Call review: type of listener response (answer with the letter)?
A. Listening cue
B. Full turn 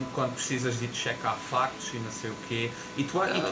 A